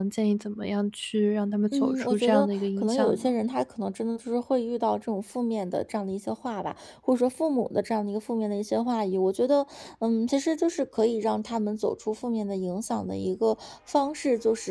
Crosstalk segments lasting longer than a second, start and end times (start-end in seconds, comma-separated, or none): 1.7-3.3